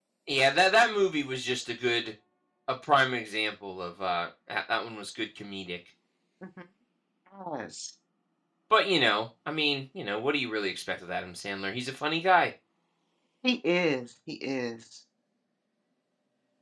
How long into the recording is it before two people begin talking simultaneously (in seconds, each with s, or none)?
none